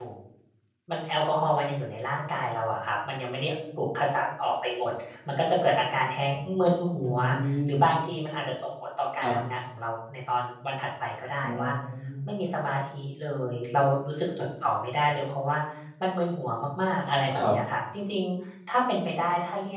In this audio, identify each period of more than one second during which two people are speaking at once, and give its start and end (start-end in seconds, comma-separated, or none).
none